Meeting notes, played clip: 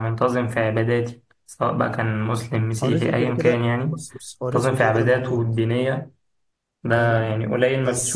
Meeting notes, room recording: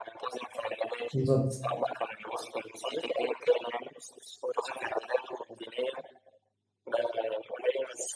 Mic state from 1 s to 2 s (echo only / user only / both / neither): both